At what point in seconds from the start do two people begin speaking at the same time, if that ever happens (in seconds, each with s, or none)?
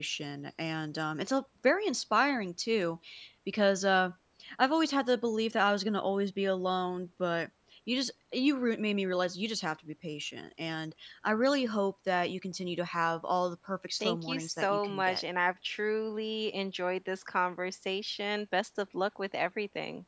14.0 s